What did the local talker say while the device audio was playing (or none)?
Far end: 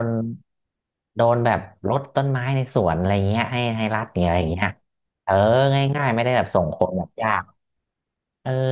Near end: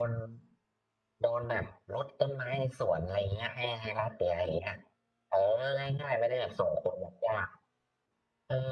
none